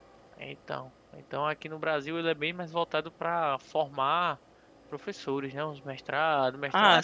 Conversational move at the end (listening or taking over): listening